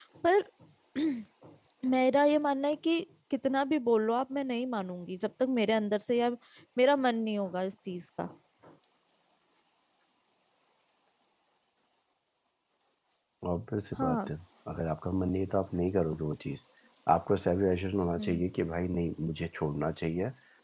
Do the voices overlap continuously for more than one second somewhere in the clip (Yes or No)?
No